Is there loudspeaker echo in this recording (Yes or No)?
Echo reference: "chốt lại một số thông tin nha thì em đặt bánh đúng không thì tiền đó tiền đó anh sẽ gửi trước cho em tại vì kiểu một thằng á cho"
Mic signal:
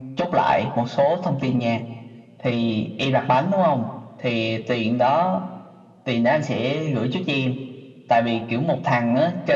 Yes